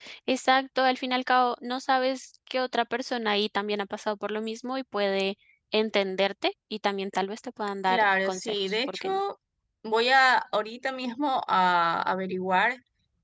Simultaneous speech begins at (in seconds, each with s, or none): 7.9 s